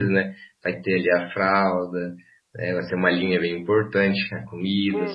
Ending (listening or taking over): taking over